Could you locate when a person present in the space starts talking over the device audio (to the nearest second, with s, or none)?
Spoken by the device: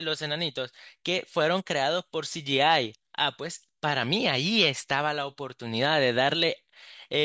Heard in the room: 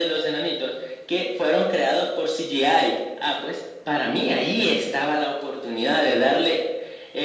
none